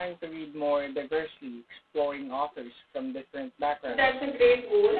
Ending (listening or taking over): taking over